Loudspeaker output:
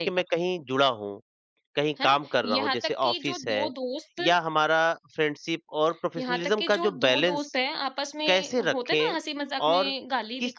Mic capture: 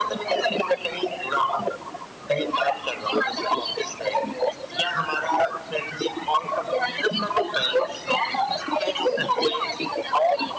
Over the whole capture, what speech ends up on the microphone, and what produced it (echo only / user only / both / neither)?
echo only